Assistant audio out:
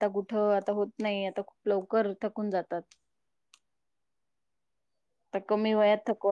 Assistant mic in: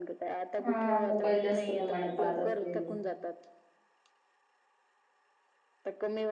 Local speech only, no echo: हा मोबाईल जास्त प्रमाणात पाहत असतील.

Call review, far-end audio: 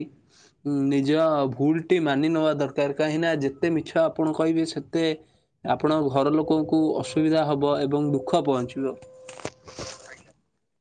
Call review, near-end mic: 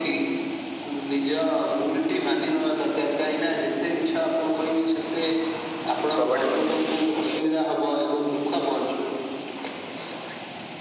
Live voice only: କବାଡି ମଧ୍ୟ

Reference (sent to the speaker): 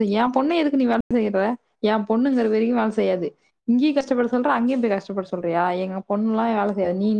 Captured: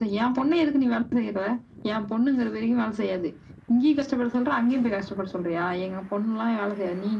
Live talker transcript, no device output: none

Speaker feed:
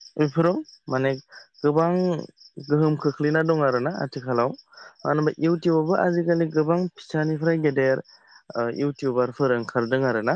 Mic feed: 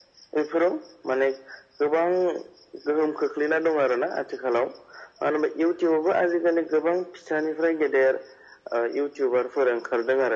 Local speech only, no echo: none

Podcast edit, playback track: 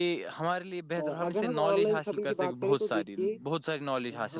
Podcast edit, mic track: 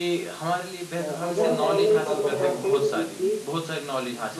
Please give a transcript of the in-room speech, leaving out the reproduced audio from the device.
ہاں بھی یہ بات تو ہے

